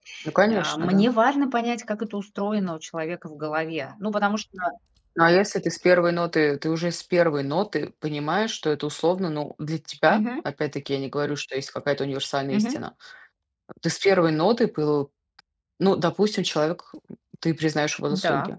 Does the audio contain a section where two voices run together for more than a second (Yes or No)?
No